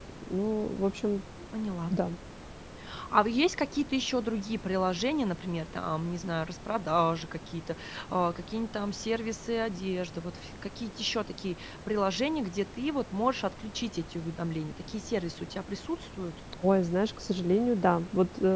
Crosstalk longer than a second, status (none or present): none